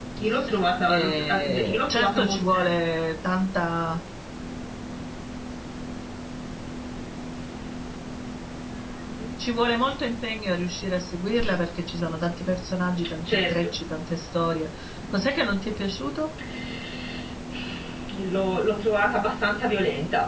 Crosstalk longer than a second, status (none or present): present